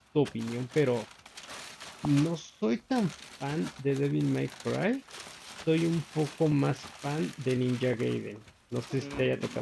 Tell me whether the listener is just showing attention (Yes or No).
No